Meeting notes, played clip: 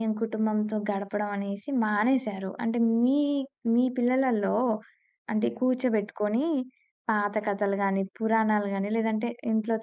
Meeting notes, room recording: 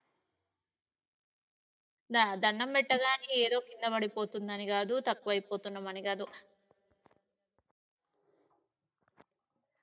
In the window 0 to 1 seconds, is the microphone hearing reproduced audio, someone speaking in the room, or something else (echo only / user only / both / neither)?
neither